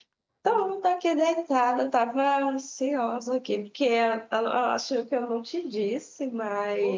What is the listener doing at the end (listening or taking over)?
taking over